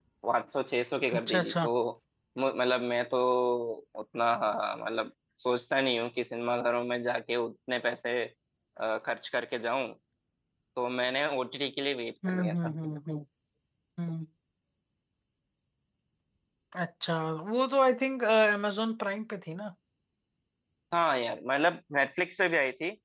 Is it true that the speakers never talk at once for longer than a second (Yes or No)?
Yes